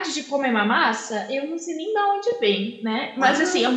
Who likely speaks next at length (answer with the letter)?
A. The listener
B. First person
B